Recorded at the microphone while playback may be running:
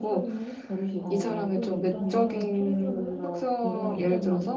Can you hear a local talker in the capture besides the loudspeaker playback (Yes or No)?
Yes